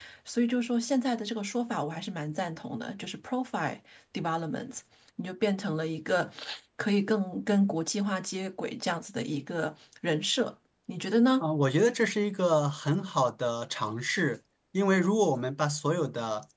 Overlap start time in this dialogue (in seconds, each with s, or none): none